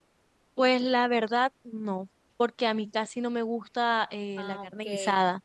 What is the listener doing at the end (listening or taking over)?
listening